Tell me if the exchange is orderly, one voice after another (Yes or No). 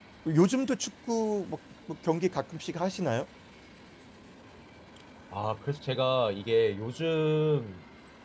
Yes